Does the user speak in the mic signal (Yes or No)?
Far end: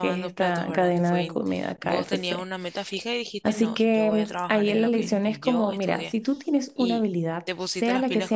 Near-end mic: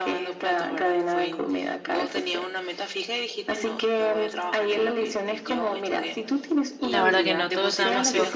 Yes